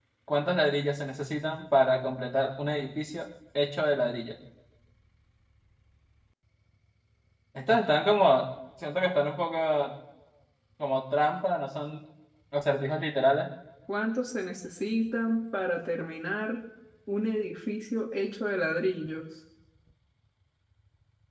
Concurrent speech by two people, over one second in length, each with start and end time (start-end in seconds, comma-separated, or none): none